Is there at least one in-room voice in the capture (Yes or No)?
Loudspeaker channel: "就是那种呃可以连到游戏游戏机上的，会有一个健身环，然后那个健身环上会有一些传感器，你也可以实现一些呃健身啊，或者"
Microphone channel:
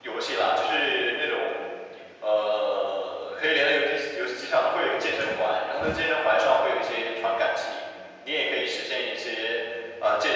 No